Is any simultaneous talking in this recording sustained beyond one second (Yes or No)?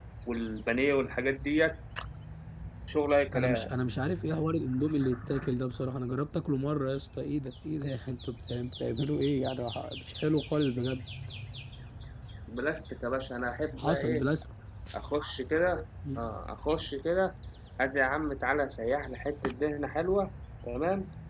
No